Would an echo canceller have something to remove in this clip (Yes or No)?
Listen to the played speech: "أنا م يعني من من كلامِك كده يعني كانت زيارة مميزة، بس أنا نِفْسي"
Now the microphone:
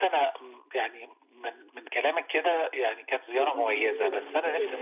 Yes